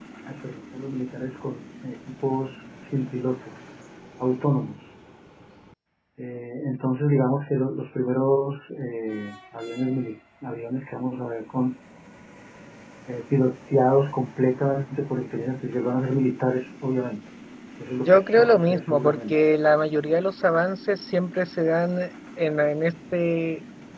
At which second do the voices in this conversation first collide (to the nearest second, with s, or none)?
18 s